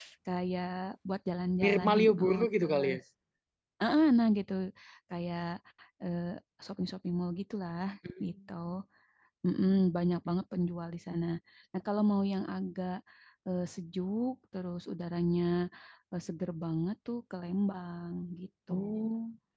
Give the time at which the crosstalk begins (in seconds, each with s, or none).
1.6 s